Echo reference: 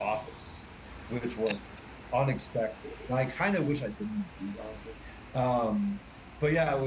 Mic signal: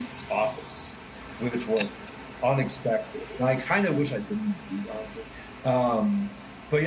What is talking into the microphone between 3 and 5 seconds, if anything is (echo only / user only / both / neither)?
echo only